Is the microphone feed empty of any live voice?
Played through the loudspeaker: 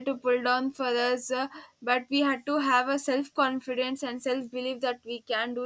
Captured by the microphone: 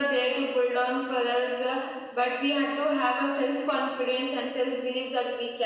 Yes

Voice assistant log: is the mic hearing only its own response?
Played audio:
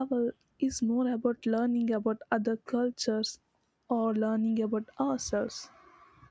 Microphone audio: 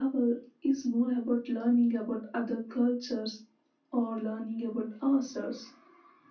Yes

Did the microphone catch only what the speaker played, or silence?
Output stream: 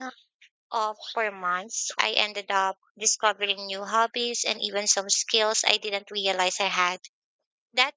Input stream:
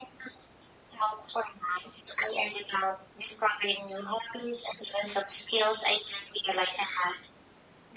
Yes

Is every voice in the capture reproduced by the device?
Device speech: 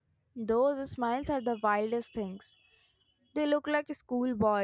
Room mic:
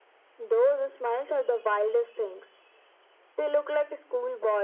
Yes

